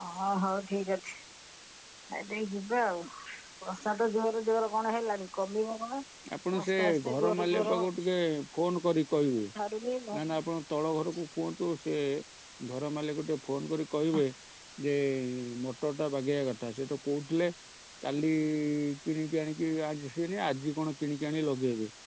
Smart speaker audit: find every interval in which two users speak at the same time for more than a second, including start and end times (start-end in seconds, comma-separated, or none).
6.6-7.9